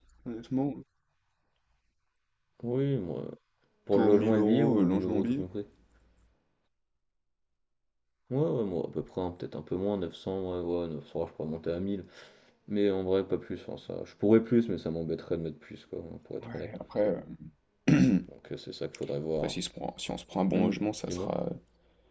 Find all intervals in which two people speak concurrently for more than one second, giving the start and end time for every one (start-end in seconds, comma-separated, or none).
3.9-5.4